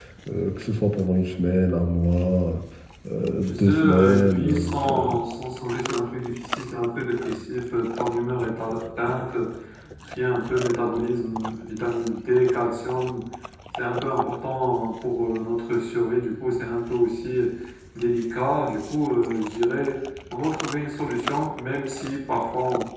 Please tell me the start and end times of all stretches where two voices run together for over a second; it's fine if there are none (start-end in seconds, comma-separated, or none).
3.5-5.2